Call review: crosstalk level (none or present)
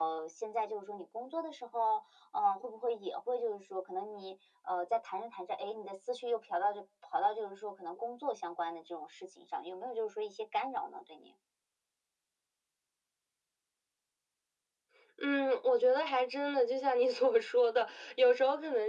none